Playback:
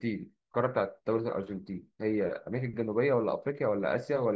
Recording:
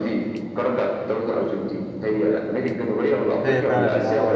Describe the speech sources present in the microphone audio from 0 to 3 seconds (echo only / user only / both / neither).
echo only